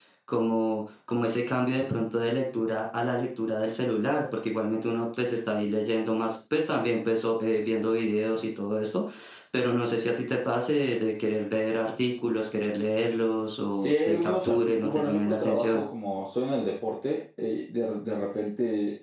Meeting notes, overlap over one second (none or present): present